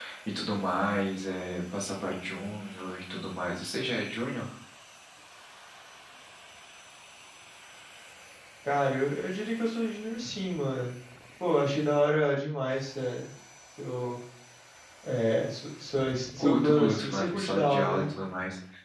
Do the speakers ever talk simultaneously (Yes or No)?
Yes